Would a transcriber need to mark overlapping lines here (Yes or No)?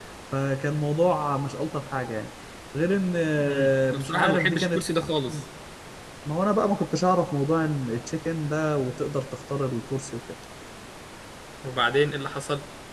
Yes